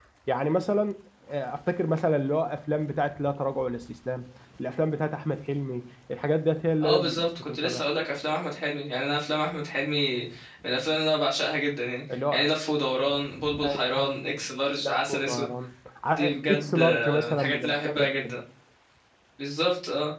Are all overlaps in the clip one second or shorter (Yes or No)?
No